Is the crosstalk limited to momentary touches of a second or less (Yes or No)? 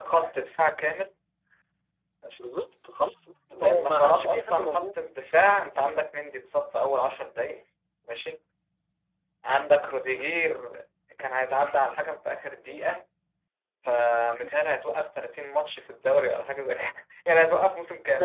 No